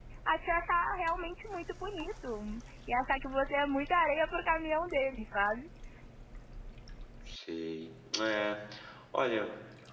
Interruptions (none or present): none